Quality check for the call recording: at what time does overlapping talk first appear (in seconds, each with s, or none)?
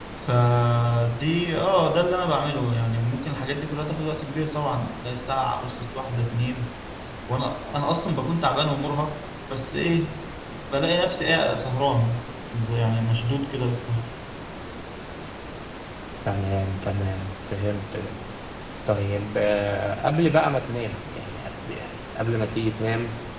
none